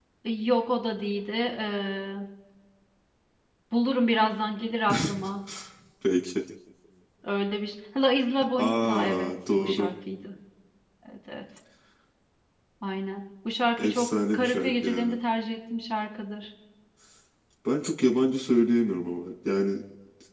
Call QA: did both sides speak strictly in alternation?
No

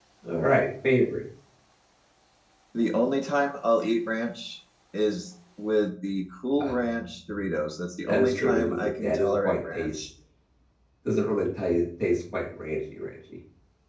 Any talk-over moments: Yes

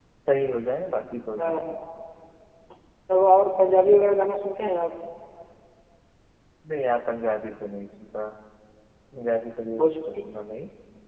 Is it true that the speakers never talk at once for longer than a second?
Yes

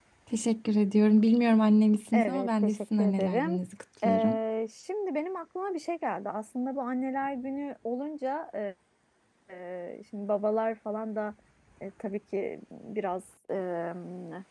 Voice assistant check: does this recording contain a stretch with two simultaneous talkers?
Yes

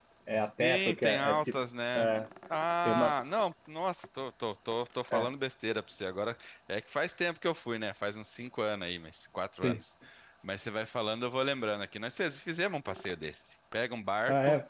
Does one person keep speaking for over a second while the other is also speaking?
Yes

